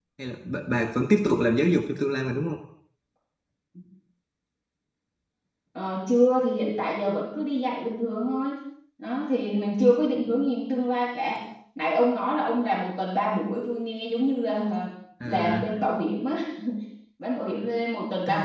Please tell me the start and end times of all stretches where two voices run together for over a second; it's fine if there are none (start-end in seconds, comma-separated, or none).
none